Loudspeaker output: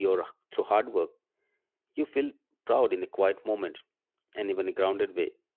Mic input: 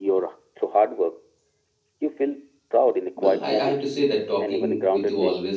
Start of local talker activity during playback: 3.2 s

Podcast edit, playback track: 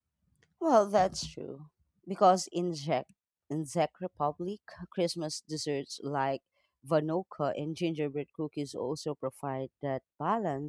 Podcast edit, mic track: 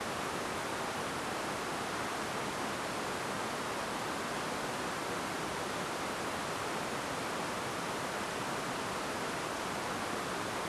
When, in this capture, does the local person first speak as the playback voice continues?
none

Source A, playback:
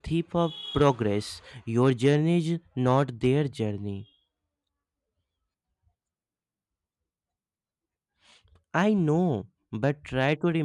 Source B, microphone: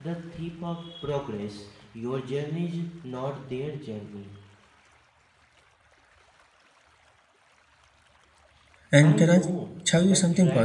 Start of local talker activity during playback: 8.9 s

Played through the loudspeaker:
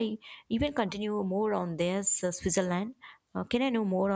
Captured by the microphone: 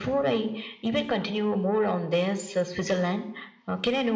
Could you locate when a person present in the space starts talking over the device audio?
none

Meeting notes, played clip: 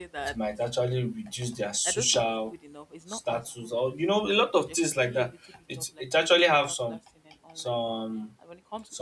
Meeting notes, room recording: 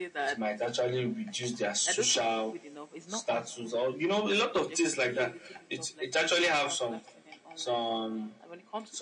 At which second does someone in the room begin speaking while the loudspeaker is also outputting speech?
none

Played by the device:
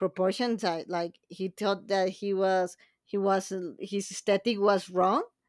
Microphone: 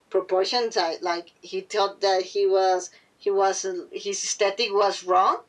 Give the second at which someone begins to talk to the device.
none

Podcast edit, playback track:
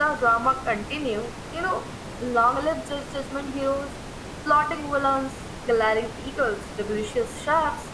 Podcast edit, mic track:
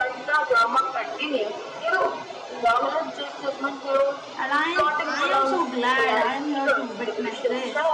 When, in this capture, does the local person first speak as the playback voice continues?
4.4 s

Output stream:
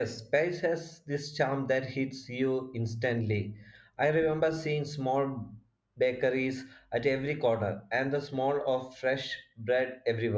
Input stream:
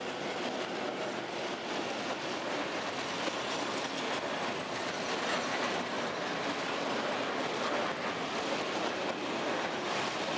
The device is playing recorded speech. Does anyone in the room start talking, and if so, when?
none

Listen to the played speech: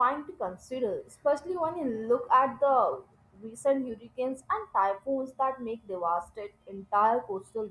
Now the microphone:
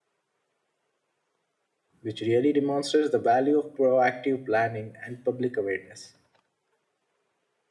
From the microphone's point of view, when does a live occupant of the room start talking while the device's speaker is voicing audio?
2.0 s

